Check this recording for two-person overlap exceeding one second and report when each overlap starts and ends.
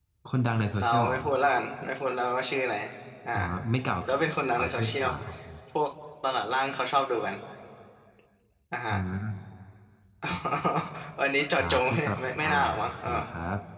11.6-13.1

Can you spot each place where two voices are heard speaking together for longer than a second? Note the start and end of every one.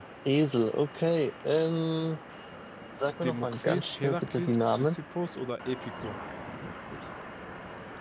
3.2-5.0

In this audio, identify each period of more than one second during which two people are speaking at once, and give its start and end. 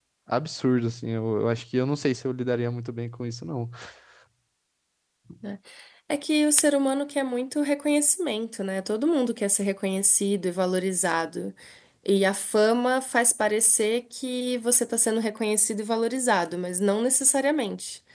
none

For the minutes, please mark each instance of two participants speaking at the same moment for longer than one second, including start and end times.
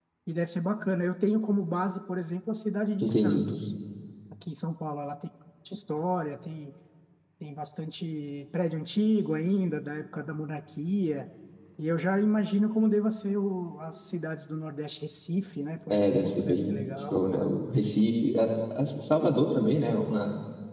15.9-17.2

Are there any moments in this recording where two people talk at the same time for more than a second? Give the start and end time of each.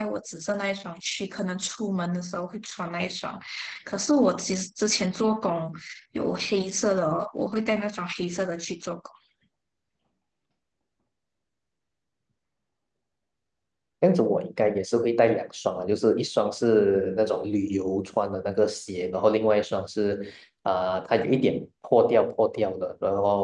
none

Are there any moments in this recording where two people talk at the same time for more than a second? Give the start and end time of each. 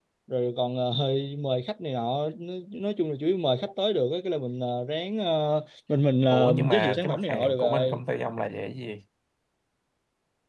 6.3-8.0

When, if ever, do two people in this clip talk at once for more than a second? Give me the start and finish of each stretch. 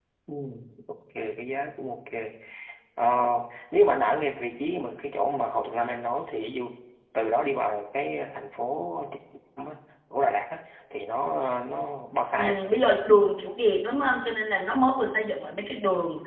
none

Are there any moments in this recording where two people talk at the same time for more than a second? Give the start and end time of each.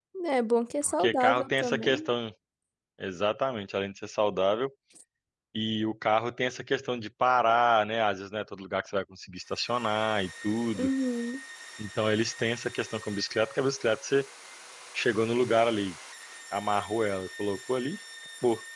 0.8-2.1

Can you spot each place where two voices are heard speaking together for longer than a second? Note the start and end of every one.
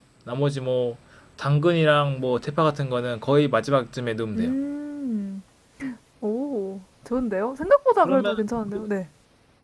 none

